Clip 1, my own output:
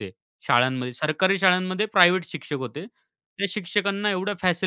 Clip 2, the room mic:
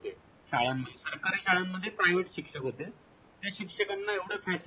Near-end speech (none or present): none